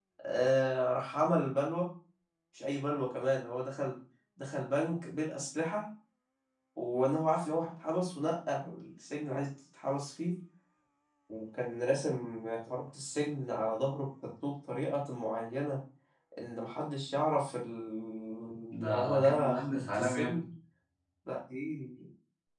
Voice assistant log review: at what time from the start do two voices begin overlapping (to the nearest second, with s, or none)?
19 s